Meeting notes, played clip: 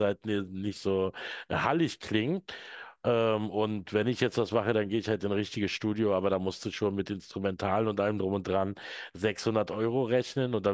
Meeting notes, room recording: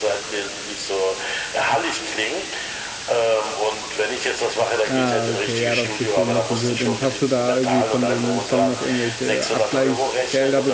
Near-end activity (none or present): present